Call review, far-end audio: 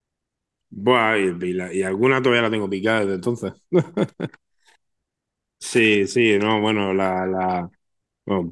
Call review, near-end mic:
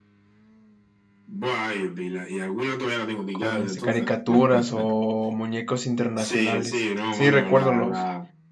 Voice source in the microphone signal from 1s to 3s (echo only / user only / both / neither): echo only